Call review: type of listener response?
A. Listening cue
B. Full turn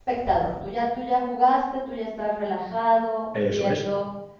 A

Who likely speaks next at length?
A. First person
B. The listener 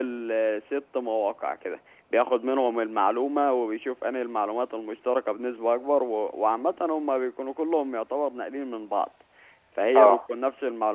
A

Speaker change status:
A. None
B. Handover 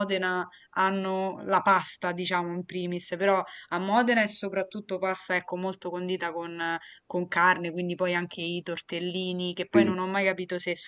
A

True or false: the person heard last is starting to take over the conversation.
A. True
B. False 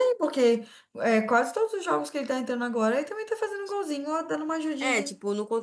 A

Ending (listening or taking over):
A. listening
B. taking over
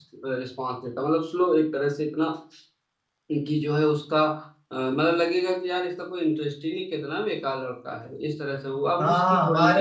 B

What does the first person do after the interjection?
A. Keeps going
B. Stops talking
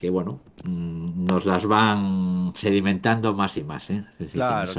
B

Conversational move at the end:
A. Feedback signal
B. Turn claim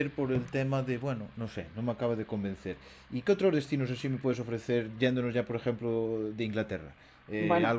A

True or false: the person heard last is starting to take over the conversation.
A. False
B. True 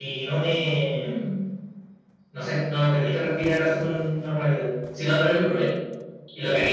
A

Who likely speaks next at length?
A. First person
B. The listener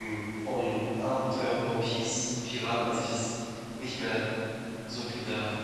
B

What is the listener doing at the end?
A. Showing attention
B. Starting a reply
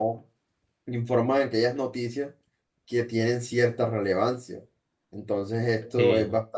A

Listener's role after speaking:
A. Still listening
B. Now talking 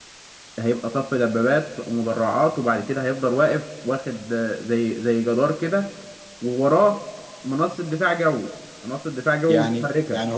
B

